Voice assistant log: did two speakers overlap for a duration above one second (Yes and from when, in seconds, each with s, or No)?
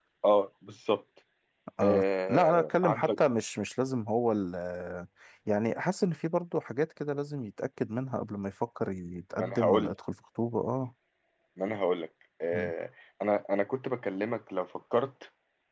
Yes, from 1.8 s